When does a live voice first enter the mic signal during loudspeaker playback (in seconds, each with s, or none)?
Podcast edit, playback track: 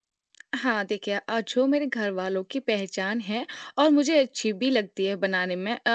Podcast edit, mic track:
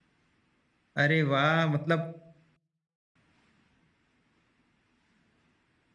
1.0 s